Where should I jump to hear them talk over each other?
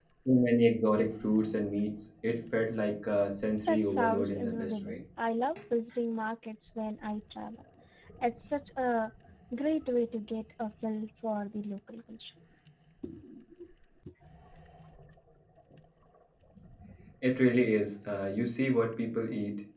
3.7 s

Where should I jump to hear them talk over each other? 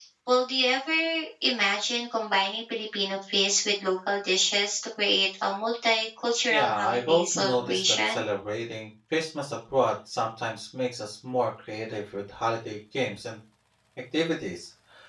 6.5 s

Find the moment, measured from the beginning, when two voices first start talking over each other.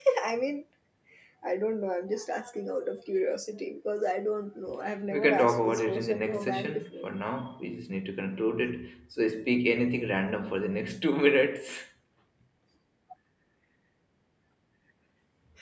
5.1 s

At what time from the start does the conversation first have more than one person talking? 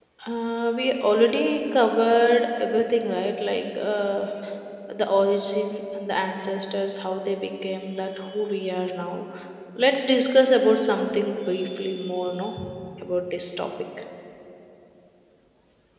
none

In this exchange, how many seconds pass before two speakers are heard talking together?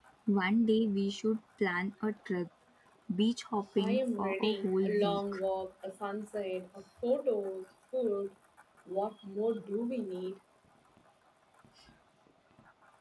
3.8 s

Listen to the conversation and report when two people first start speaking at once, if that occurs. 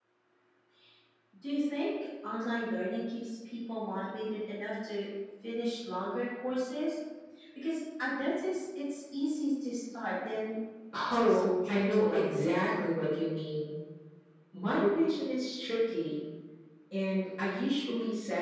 11.1 s

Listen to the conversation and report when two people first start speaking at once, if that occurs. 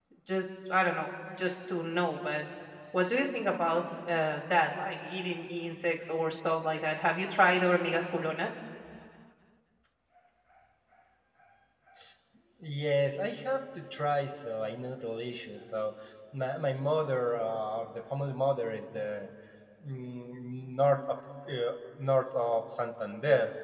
none

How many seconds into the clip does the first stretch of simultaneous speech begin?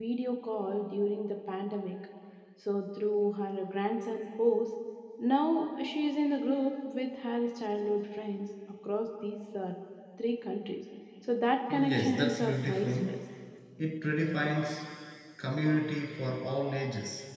11.7 s

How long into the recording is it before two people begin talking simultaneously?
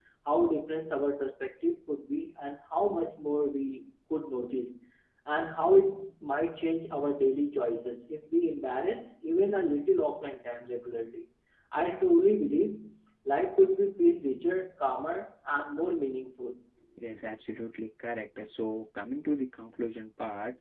none

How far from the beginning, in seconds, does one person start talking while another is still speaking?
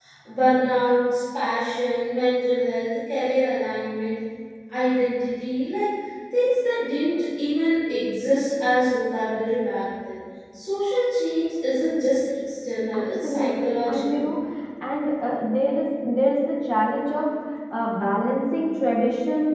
12.9 s

